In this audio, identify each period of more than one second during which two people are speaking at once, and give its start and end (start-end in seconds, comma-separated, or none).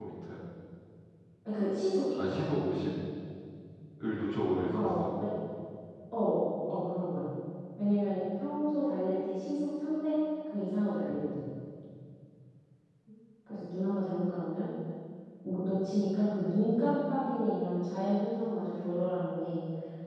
none